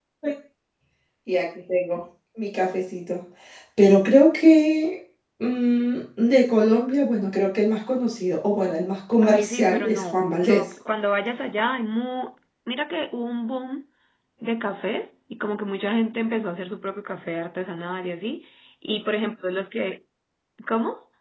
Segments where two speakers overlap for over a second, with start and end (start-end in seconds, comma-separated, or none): 9.2-10.6